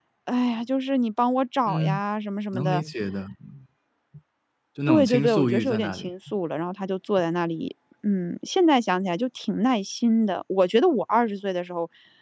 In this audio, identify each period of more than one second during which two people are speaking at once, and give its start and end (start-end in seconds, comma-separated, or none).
4.9-6.1